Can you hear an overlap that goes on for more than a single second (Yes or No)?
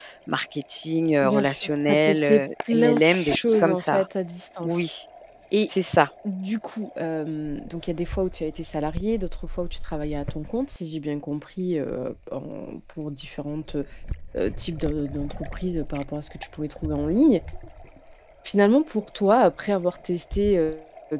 Yes